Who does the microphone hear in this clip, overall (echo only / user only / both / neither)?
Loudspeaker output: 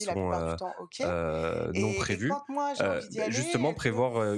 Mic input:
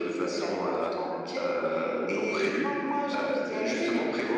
echo only